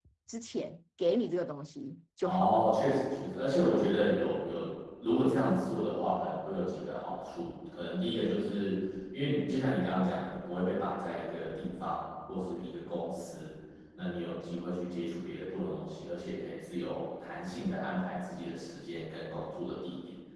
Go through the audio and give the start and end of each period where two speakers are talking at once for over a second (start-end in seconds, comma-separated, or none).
none